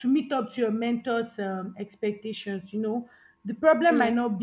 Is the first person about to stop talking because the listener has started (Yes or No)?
No